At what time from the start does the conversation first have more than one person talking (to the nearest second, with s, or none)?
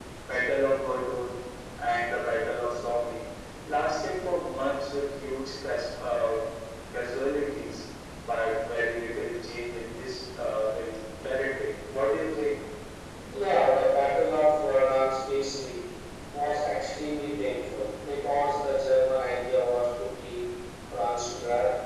none